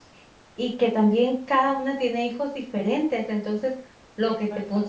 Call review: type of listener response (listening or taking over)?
listening